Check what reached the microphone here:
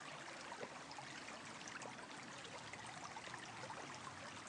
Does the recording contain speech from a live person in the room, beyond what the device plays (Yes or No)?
No